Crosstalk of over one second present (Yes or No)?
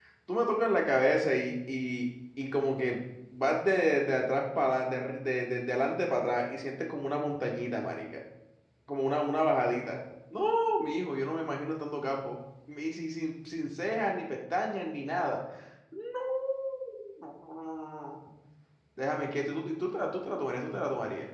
No